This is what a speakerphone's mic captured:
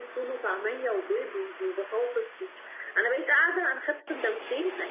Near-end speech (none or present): none